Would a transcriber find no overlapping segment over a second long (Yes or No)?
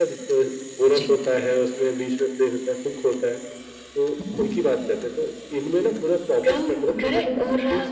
No